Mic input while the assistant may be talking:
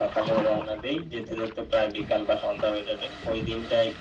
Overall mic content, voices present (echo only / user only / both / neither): echo only